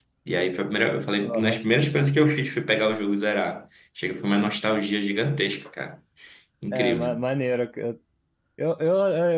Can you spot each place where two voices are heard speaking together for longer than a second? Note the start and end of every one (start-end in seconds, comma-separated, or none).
none